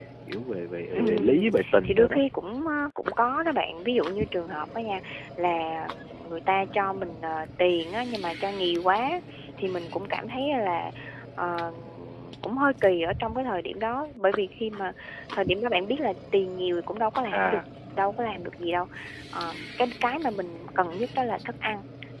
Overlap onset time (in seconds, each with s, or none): 1.0 s